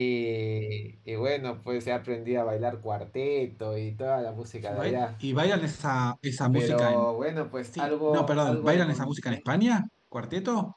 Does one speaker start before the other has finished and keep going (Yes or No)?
Yes